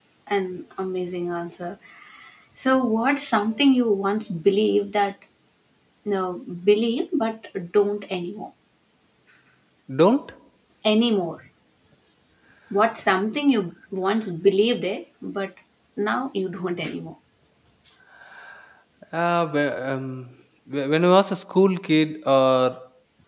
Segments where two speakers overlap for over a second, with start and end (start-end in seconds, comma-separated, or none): none